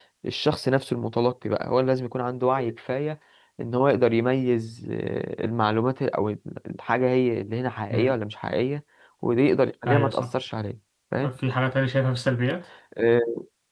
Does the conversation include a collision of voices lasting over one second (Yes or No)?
No